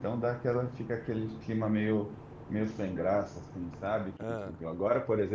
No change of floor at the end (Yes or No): Yes